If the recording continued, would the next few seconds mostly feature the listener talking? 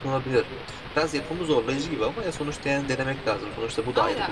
Yes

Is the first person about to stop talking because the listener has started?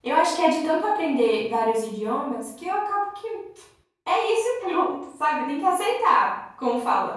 No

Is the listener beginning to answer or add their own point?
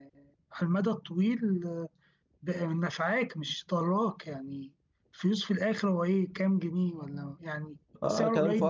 Yes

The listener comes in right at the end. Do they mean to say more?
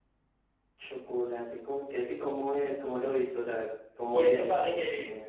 Yes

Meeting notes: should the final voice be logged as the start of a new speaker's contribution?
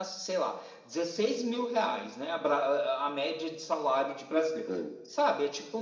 No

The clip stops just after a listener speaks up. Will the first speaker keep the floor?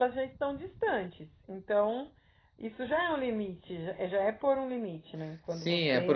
No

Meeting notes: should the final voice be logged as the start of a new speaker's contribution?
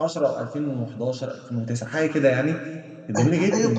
Yes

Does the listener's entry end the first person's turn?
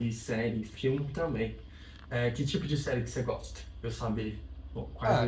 Yes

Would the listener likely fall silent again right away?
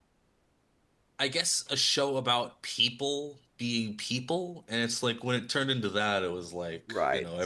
No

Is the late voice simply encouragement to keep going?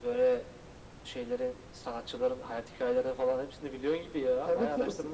No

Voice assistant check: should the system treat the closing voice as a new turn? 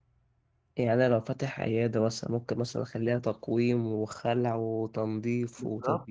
Yes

